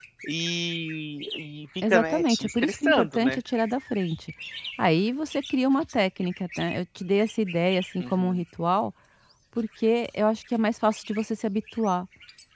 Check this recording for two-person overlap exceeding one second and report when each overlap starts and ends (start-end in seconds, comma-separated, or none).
1.9-3.4